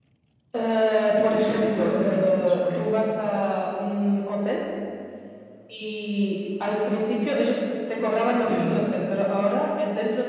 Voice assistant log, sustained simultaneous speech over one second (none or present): present